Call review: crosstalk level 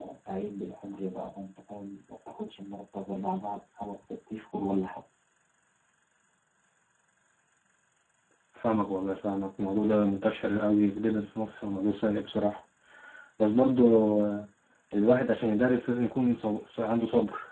none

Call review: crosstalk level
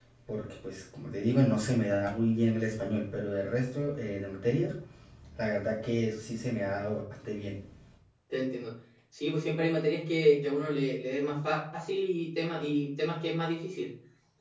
none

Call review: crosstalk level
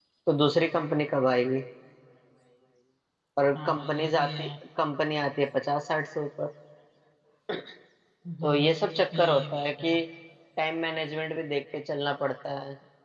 present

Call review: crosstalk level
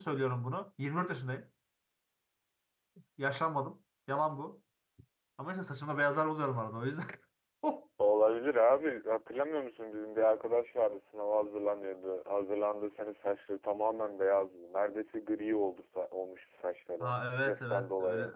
present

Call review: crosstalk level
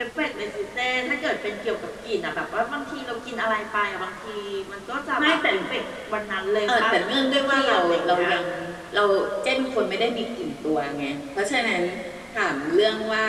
present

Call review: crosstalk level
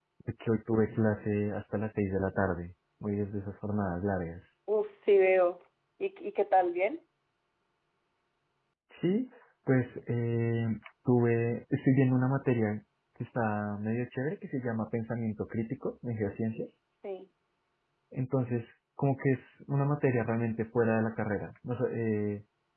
none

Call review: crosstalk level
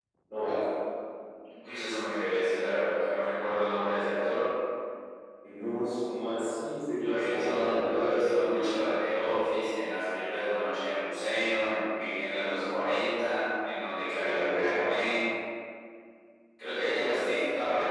present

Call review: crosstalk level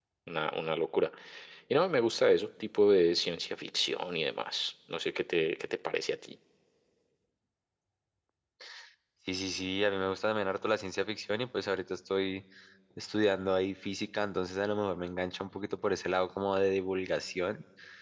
none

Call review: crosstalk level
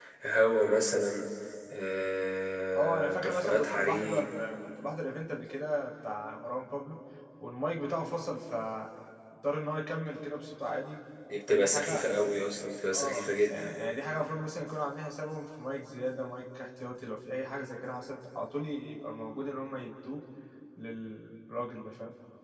present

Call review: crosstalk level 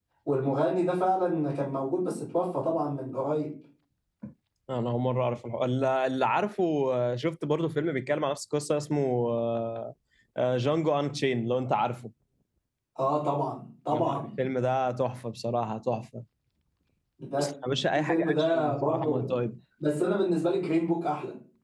present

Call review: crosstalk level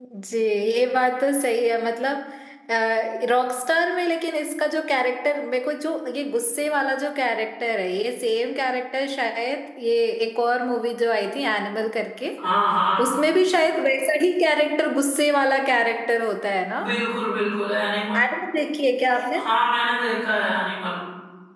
none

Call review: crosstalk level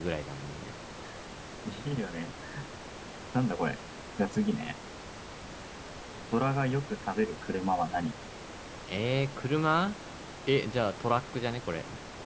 none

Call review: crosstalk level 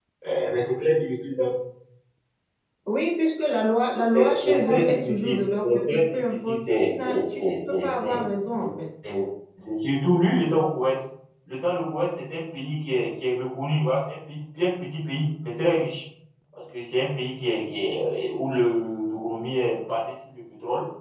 present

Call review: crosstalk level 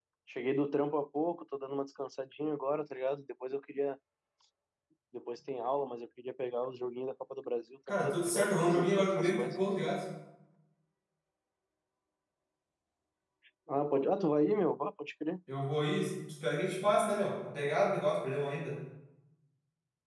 present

